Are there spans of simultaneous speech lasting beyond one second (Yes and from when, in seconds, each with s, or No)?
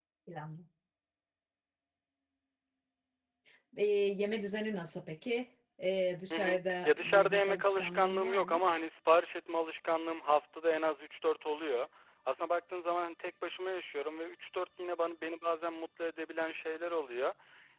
Yes, from 6.3 s